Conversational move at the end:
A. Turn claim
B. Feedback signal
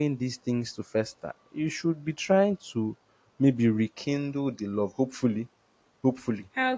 B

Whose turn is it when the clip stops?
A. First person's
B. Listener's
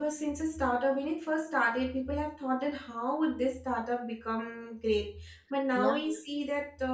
A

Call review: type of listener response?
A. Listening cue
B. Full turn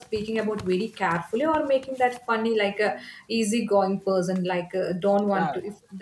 A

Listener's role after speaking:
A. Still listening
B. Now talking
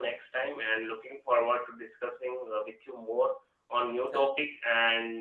A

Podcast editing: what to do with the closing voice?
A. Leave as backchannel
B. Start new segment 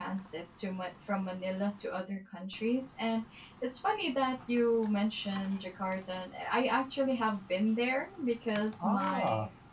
A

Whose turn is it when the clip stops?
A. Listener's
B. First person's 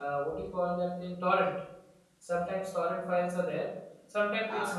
B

